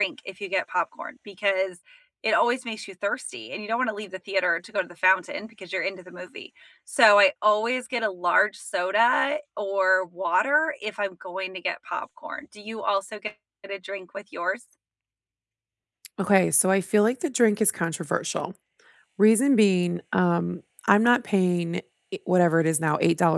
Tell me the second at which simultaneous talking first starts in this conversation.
none

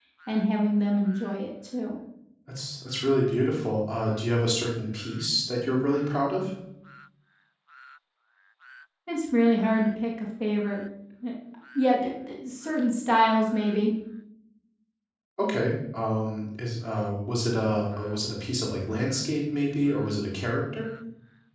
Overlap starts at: none

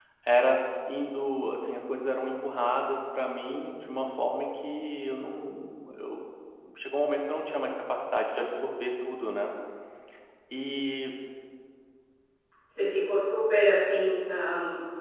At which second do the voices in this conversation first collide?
none

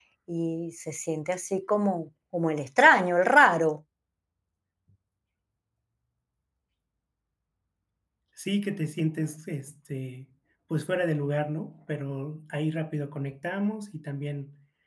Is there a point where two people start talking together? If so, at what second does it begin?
none

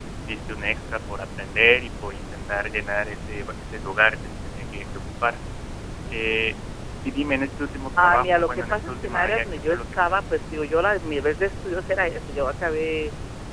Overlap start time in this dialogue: 8.0 s

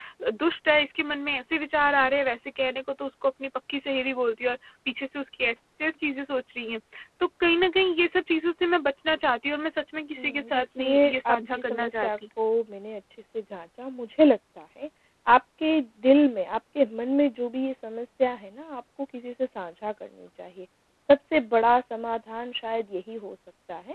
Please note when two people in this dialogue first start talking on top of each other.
10.2 s

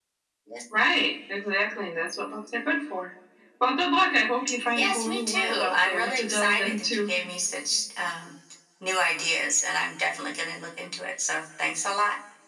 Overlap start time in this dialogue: 4.8 s

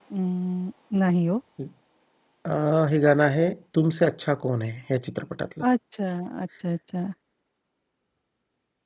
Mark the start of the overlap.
none

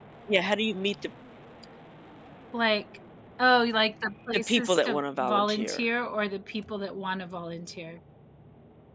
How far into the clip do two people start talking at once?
4.3 s

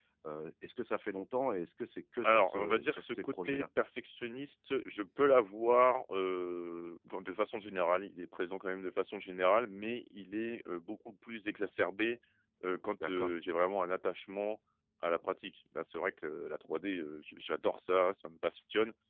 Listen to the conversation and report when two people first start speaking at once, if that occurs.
2.2 s

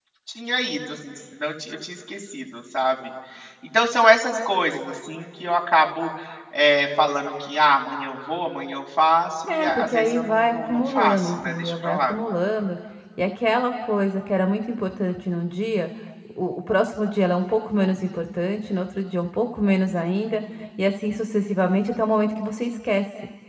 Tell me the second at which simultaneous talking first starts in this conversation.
9.5 s

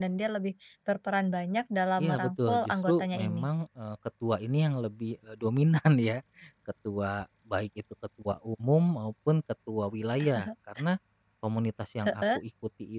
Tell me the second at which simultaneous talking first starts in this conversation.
2.0 s

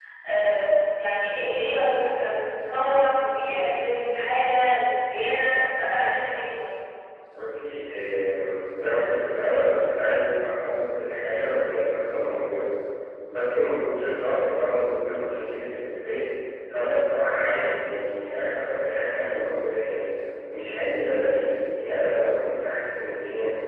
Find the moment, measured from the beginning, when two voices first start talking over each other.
none

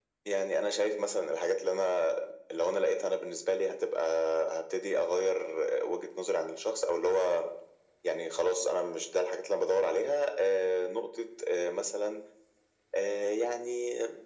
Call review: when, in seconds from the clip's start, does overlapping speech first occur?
none

